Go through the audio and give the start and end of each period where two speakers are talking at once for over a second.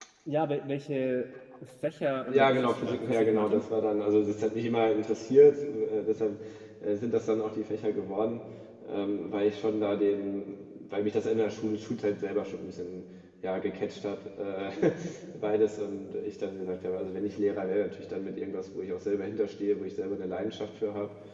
2.3-3.6

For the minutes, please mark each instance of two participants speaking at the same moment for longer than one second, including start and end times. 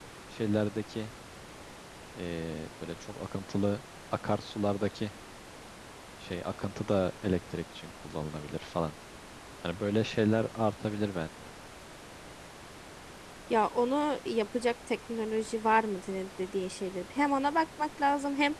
none

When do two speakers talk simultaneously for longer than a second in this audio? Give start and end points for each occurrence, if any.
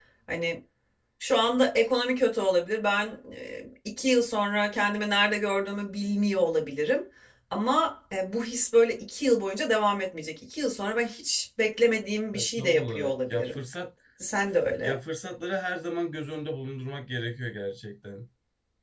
12.3-13.6

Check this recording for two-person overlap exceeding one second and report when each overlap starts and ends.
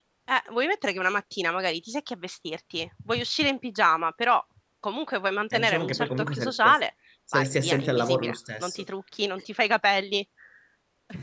5.5-6.8, 7.3-8.8

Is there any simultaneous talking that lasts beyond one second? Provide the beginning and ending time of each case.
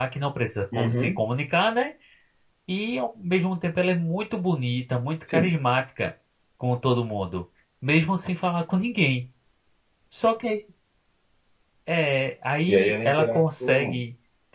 12.7-14.0

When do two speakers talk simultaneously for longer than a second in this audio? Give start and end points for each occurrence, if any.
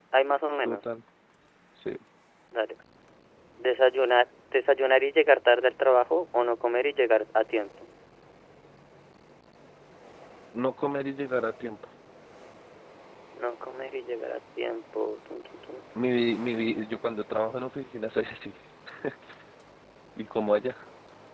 none

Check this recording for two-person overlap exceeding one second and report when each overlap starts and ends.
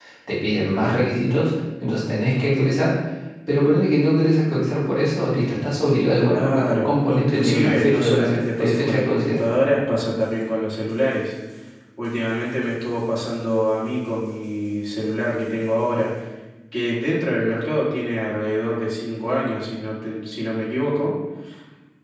6.3-9.4

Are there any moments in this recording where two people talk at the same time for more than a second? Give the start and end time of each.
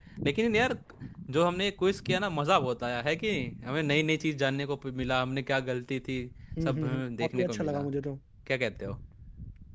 6.7-7.9

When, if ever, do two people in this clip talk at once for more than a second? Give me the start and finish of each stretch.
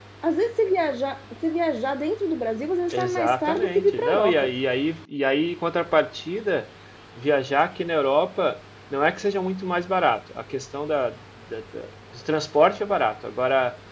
2.9-4.5

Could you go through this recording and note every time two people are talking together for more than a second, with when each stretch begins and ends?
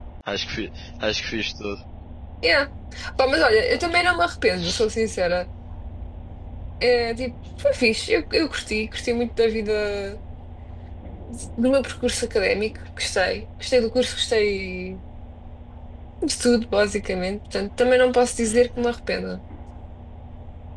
none

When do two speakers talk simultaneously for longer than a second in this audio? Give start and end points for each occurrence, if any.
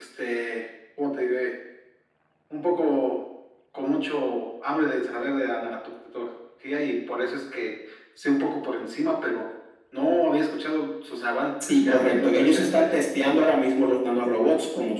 11.6-13.0

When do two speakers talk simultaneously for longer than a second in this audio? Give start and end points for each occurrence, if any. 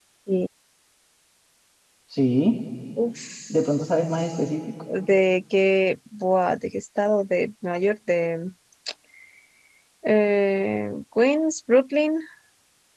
none

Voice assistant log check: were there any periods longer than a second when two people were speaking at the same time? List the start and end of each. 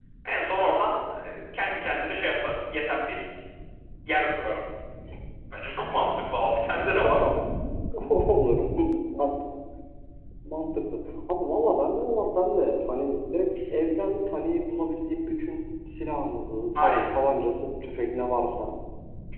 none

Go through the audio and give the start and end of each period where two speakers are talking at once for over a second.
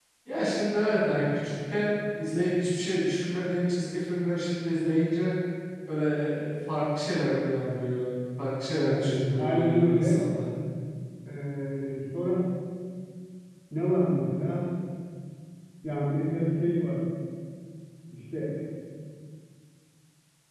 8.9-10.3

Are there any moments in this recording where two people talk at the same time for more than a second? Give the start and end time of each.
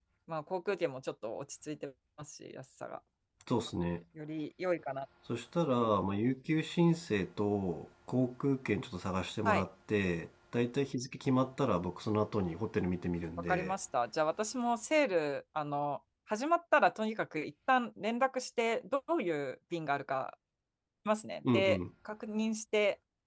none

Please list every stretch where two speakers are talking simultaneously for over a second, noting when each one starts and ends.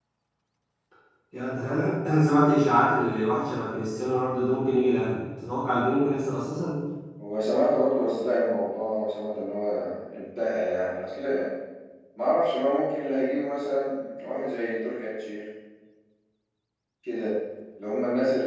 none

